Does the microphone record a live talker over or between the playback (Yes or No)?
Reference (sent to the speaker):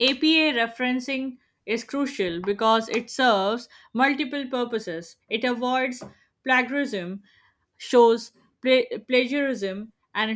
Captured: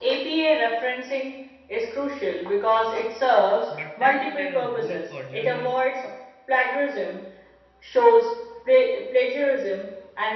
Yes